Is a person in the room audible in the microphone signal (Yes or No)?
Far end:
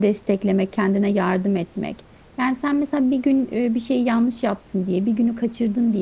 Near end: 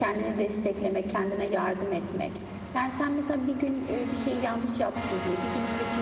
No